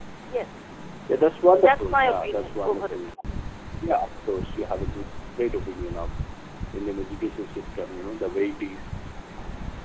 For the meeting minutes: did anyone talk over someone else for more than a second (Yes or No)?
Yes